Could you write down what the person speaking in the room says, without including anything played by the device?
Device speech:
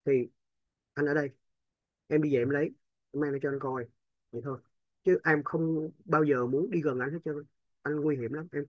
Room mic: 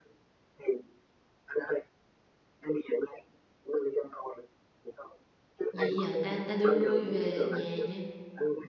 Vậy giờ ta ta đưa ngươi về nhà nha.

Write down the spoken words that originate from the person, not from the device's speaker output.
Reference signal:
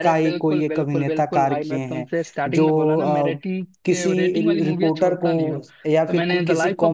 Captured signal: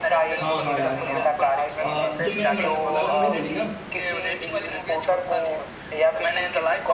हाँ हाँ यार हाँ अ, जो मैंने मड़गांव मूवी बोली ना

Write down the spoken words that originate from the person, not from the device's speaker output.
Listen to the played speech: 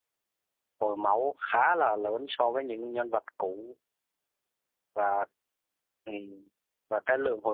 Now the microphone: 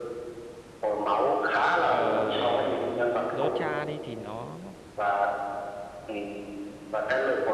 uh, Locha đi thì nó

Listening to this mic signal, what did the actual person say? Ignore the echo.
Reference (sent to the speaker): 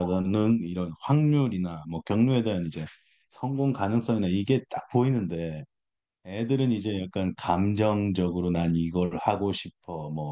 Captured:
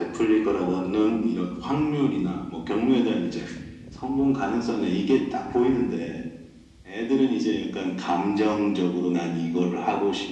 none

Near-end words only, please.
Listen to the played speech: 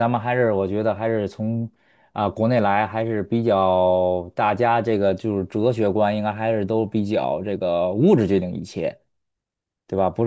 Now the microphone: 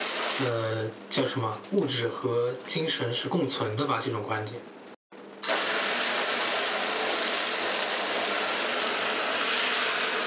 呃，叫什么，物质和精神是共存的吧，这种观点。

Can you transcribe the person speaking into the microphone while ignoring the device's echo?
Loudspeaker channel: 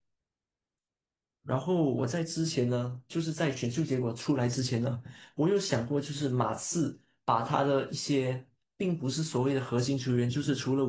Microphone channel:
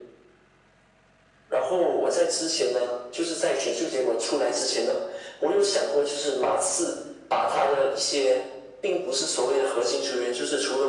none

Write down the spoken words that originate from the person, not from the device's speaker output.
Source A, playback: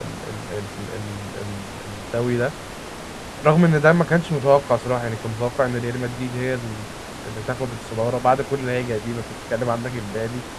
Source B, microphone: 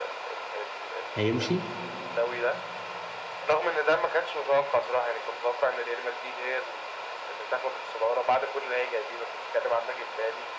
هيمشي

